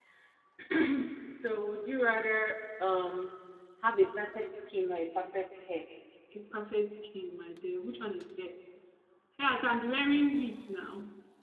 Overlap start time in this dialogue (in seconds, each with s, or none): none